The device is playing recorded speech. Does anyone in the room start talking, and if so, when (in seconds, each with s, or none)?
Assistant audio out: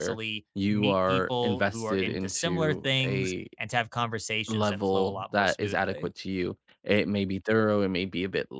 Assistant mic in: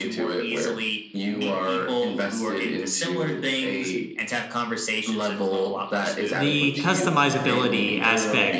6.3 s